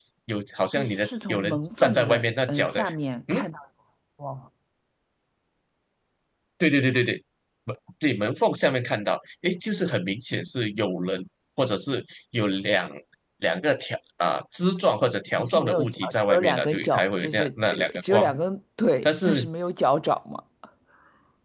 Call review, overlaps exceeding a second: present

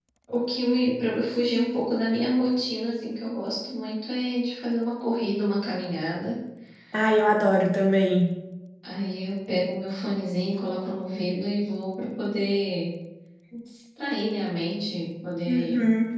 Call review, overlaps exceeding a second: none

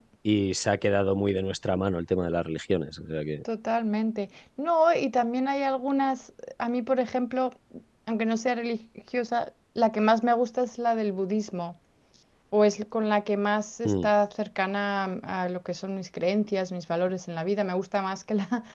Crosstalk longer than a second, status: none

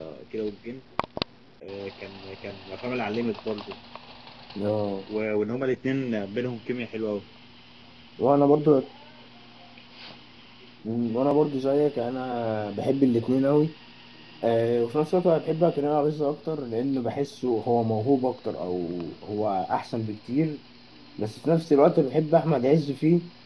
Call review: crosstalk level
none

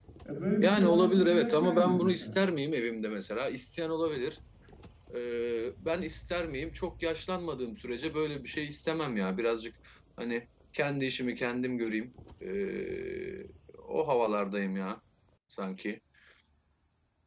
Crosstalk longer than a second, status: present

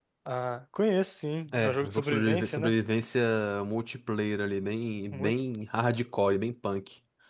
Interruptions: present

